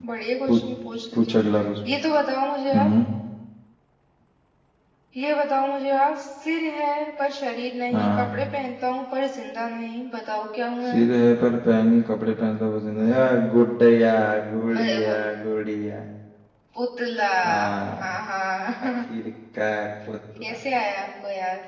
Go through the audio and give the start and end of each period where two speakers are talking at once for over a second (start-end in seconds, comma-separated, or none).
none